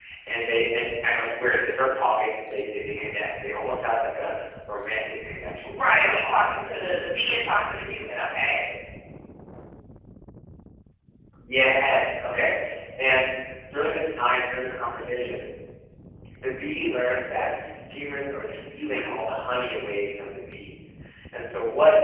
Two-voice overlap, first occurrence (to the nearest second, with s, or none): 6 s